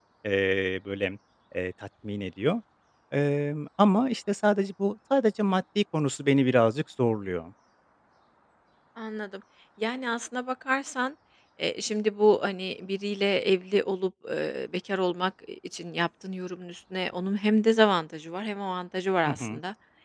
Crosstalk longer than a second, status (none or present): none